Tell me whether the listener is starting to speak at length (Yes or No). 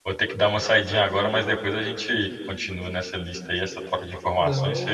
Yes